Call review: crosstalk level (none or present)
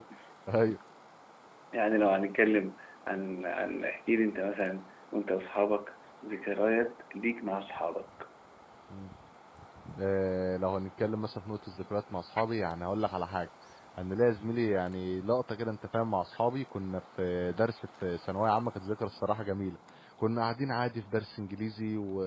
none